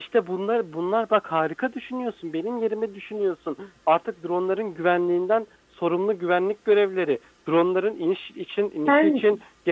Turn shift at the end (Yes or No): No